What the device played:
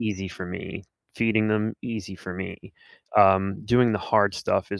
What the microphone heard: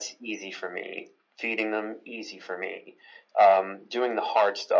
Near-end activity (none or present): none